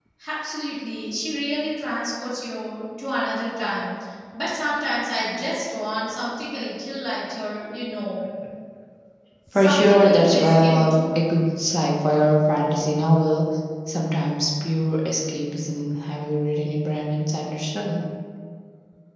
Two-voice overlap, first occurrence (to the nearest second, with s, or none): 10 s